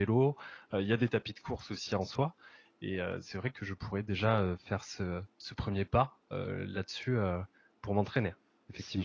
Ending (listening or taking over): taking over